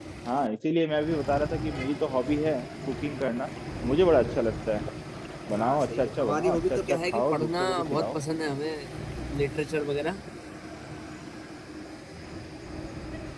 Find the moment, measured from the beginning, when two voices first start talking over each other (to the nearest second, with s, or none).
6 s